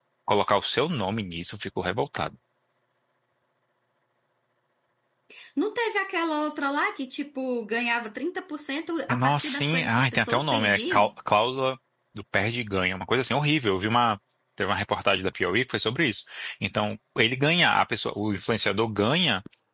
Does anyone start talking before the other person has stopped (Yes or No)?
Yes